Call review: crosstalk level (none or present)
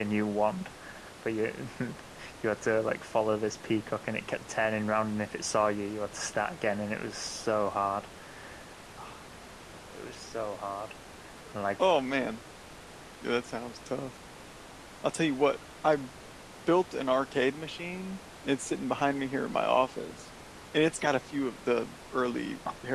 none